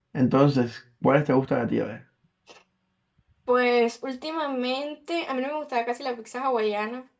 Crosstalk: none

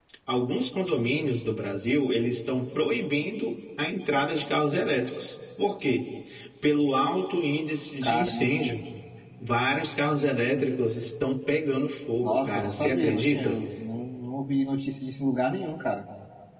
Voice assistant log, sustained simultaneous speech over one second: present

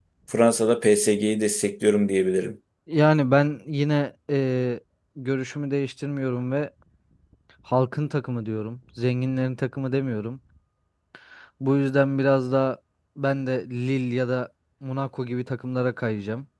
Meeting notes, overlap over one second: none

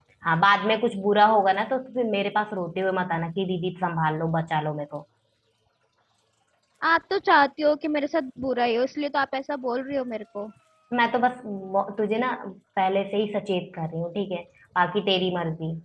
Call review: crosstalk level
none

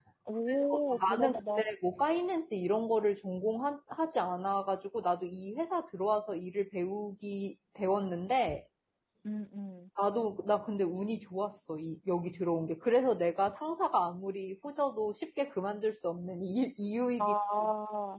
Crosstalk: present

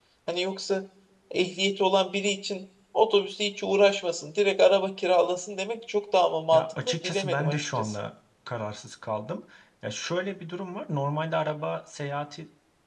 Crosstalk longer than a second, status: present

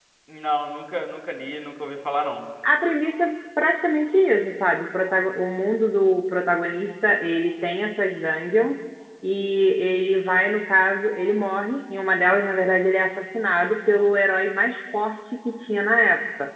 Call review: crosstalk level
none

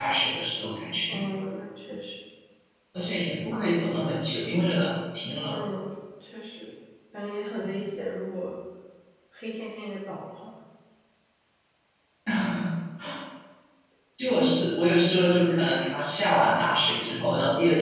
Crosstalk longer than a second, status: none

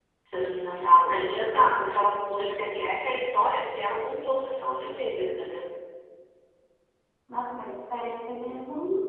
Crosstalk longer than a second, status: none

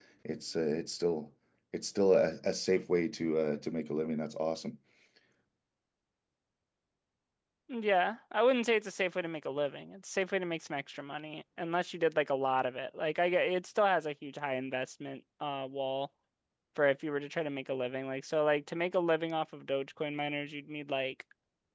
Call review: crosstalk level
none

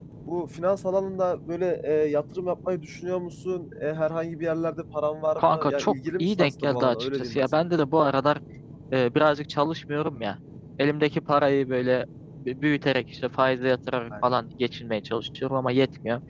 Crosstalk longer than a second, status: present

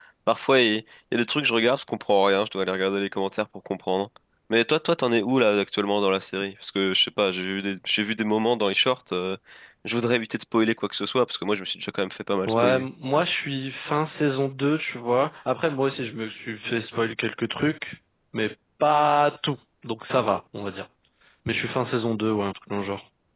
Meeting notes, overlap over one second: none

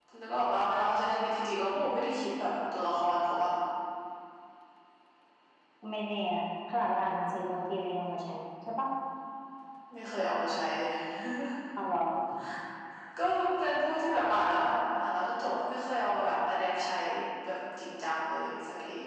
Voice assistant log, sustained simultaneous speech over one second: none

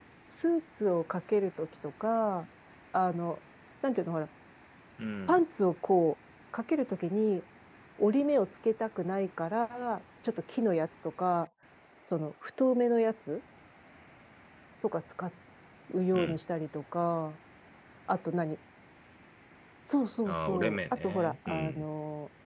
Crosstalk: present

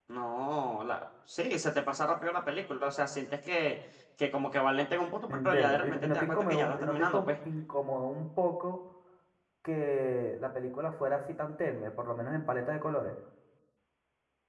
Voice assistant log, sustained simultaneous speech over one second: present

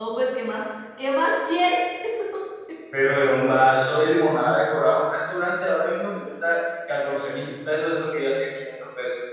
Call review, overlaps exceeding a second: none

